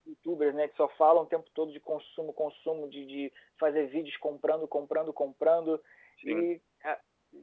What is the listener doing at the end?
listening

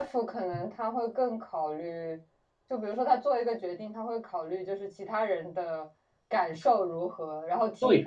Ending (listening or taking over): listening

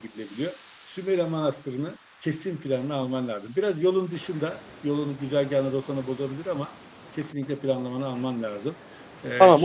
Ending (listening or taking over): taking over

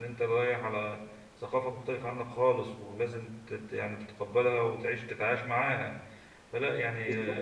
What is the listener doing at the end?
listening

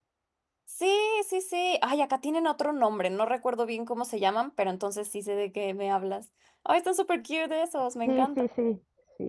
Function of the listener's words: taking over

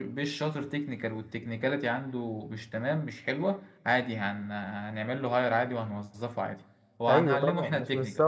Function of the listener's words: taking over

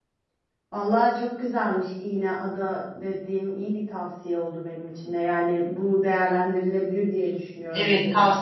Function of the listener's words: taking over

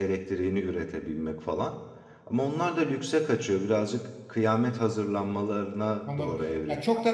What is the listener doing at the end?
taking over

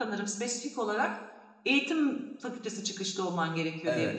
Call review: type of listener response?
taking over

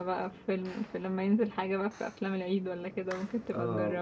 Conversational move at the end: taking over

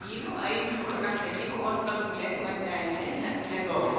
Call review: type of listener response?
taking over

